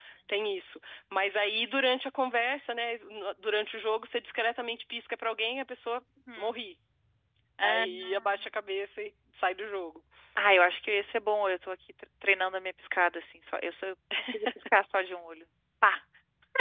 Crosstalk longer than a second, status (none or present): none